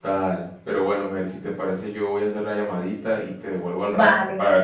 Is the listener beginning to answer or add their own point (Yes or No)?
Yes